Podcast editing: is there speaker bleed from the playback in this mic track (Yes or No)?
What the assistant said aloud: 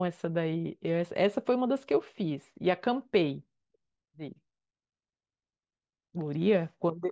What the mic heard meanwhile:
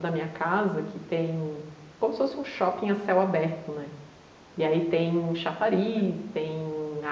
No